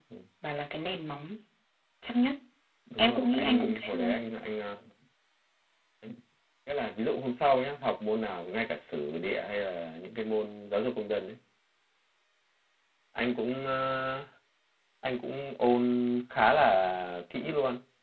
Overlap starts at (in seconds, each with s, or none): 3.0 s